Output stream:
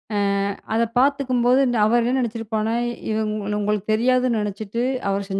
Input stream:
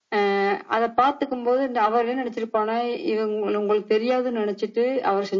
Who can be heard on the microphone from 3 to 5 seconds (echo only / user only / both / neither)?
echo only